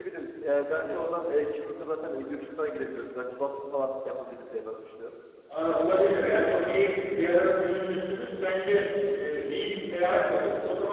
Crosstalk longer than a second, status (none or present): none